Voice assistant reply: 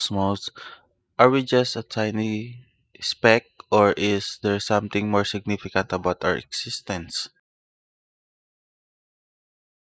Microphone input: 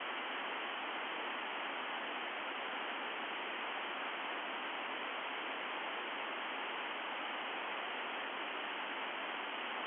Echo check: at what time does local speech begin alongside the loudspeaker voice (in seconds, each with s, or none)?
none